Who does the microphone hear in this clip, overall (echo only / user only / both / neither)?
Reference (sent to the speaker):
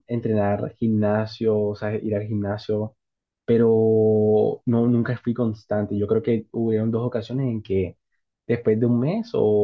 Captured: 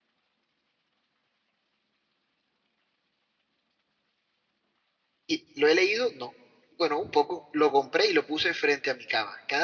user only